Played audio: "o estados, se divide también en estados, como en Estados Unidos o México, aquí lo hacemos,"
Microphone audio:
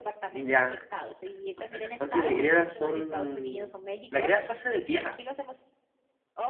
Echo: present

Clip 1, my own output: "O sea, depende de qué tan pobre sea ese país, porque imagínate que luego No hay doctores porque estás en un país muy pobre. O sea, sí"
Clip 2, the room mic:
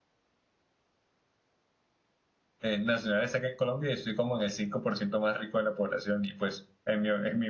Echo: none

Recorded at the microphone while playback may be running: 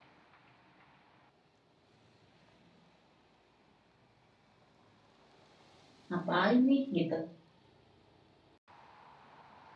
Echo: none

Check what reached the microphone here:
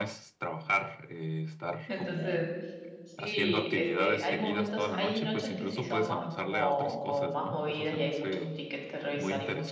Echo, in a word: present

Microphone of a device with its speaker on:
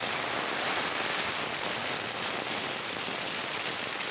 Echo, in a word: none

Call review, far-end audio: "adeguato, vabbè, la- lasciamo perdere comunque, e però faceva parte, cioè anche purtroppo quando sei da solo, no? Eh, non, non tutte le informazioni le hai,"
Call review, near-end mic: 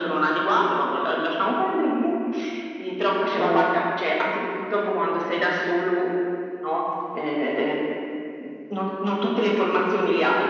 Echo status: present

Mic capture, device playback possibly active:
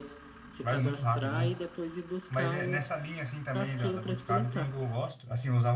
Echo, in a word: present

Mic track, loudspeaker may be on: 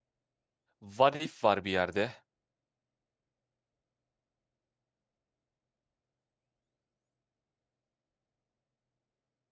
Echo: none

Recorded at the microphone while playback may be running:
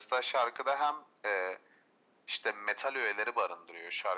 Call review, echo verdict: present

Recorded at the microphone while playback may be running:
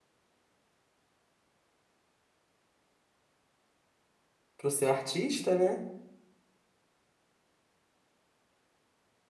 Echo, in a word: none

